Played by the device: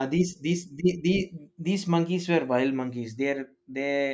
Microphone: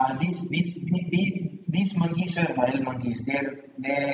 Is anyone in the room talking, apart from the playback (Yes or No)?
No